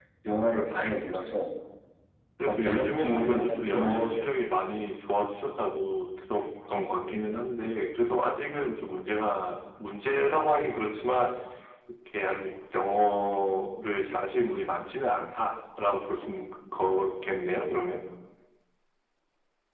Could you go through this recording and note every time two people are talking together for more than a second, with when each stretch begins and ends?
2.4-4.3

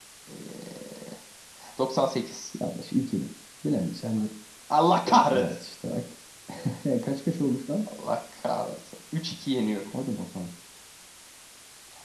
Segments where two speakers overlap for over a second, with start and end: none

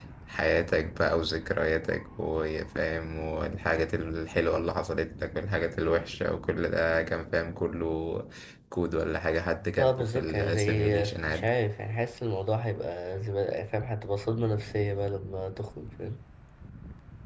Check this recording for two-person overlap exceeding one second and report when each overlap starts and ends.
9.8-11.5

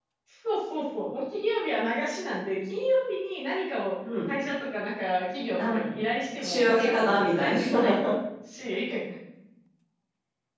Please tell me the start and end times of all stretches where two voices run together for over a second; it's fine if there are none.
6.4-8.0

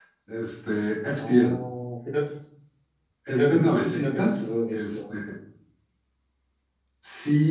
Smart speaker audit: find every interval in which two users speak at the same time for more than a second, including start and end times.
3.3-5.1

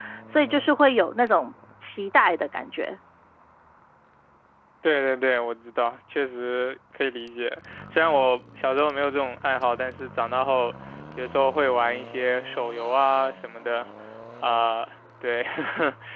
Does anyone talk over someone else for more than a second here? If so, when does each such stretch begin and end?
none

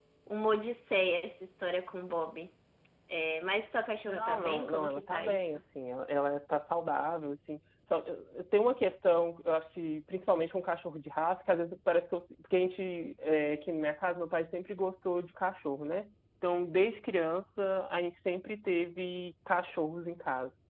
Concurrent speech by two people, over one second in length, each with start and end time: 4.0-5.6

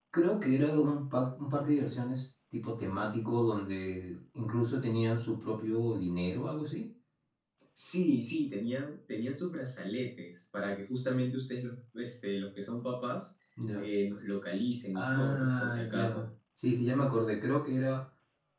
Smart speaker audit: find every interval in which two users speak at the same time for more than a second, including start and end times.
15.0-16.2

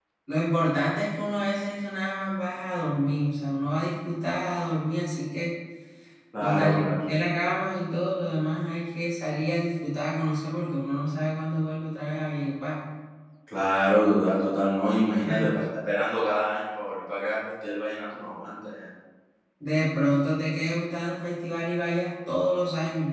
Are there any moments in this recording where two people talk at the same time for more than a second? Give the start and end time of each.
none

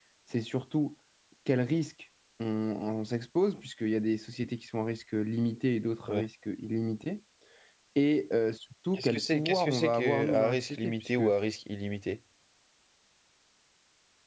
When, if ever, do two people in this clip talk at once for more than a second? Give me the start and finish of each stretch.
8.9-11.2

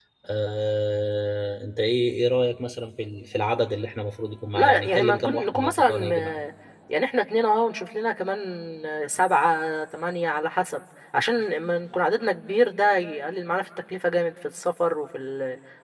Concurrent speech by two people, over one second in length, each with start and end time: 4.5-6.4

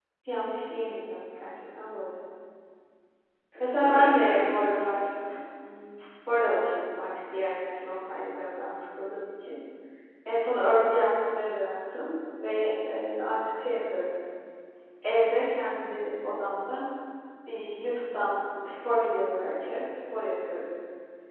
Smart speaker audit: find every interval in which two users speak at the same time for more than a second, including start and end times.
3.6-5.0

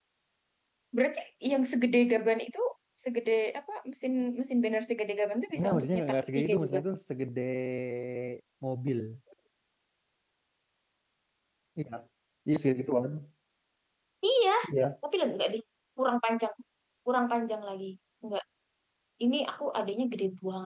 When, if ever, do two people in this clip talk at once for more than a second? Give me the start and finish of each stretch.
5.5-6.8

